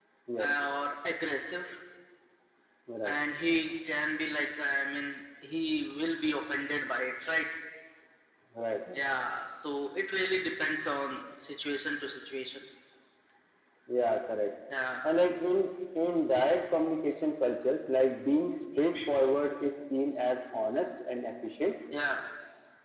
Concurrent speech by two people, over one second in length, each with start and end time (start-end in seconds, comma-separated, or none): none